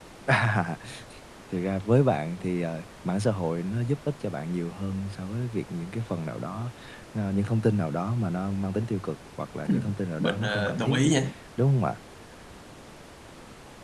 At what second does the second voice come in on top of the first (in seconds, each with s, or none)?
9.7 s